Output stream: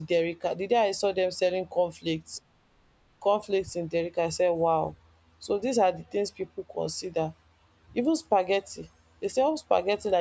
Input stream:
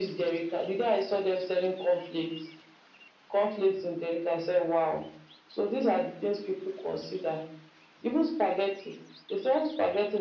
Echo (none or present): present